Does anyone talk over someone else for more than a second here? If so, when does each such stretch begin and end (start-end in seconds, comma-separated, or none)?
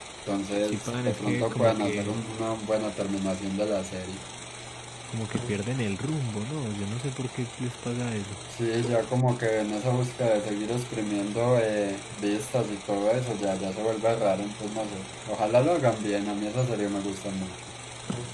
0.6-2.2